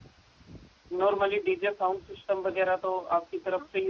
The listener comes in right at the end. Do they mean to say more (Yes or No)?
Yes